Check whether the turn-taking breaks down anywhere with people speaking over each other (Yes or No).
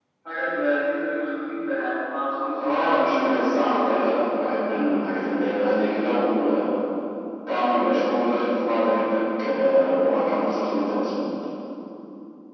Yes